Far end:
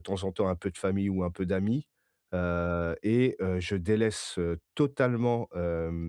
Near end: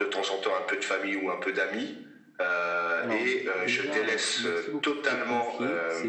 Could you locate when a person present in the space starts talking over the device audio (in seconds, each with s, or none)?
3.0 s